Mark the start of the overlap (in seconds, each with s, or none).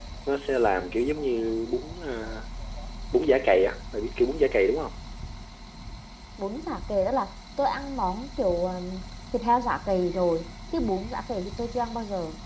none